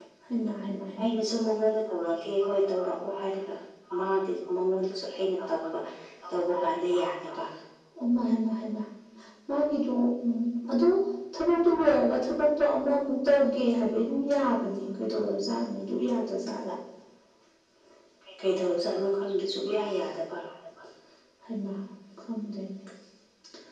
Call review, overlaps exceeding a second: none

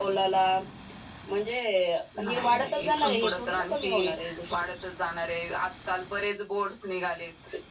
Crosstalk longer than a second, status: present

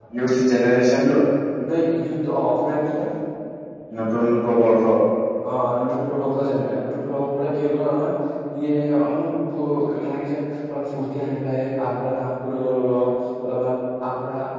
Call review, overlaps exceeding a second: none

